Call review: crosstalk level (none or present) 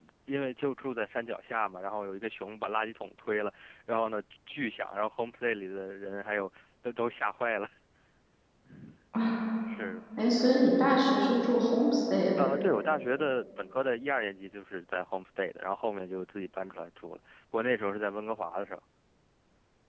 none